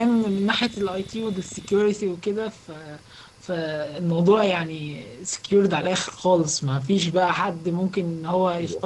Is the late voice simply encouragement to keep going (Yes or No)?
No